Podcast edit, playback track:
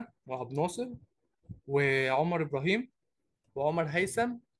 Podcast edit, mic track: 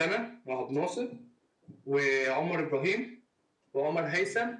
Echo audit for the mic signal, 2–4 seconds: echo only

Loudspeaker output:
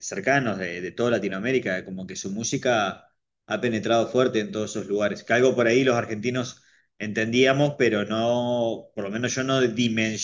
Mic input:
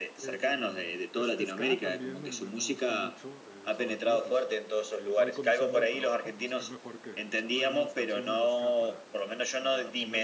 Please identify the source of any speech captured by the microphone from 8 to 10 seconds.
both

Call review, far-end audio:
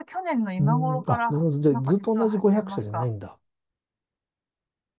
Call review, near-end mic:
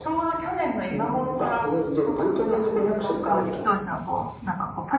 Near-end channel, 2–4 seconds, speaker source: both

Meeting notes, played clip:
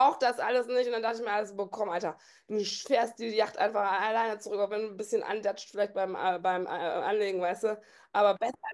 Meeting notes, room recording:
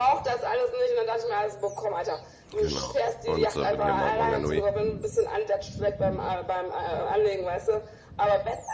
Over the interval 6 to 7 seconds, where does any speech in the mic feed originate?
echo only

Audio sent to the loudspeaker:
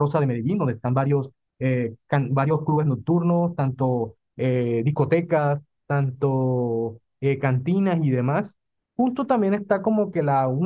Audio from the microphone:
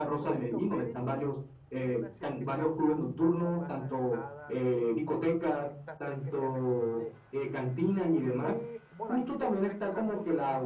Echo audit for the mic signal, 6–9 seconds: both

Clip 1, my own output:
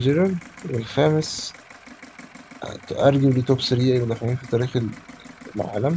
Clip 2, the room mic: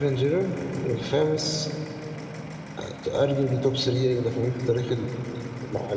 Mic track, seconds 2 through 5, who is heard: echo only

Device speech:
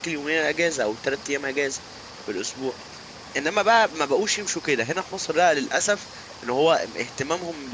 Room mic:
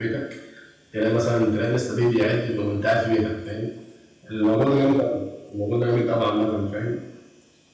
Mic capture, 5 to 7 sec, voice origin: user only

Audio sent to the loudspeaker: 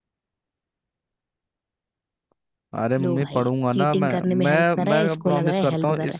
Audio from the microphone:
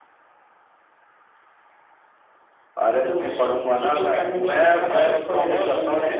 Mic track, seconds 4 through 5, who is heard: echo only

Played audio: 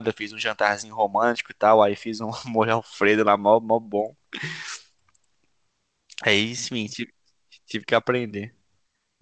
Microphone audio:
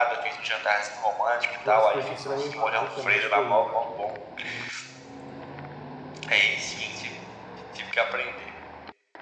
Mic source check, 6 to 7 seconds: echo only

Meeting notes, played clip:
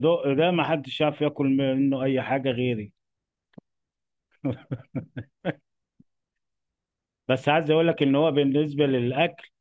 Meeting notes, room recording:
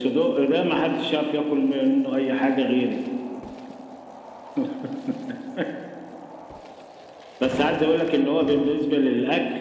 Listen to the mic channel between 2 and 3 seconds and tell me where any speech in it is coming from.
echo only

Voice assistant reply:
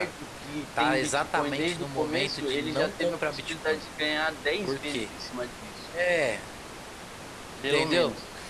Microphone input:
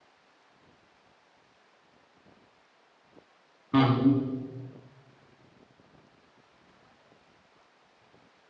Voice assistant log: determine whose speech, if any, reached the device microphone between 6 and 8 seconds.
neither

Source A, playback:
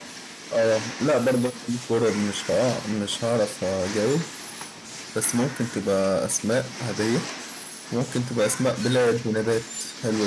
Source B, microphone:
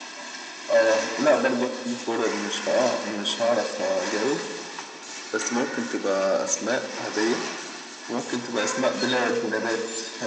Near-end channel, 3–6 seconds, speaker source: echo only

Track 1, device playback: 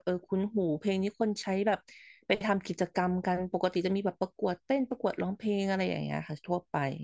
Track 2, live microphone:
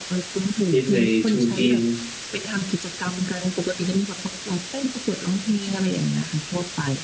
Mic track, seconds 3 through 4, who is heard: echo only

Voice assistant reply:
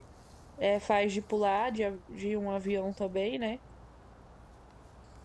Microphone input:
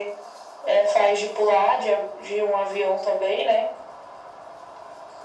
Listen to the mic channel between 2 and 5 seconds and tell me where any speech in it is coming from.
echo only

